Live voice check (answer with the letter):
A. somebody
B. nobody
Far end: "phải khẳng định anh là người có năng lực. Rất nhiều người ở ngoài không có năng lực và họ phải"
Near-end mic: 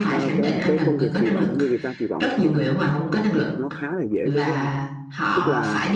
A